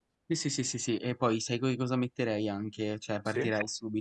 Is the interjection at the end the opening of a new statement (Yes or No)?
No